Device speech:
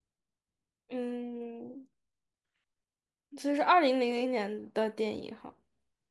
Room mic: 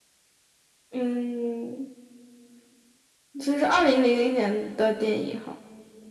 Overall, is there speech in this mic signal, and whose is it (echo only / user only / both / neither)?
echo only